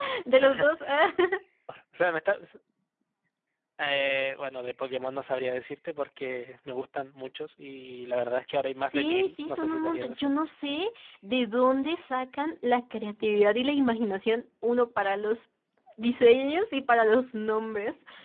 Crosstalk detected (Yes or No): Yes